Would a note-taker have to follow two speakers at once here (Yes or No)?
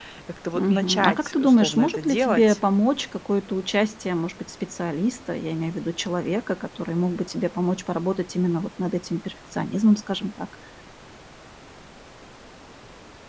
Yes